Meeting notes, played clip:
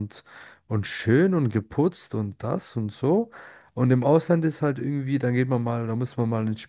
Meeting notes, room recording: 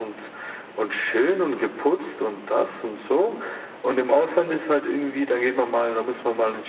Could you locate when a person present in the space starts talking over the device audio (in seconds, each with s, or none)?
none